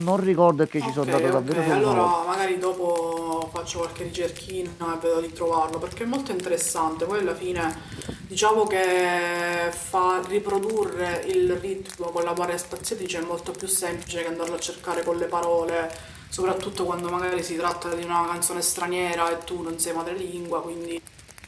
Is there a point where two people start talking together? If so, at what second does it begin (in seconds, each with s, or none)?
0.8 s